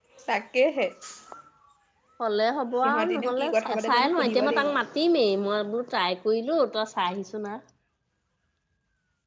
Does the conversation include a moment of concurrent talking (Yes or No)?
Yes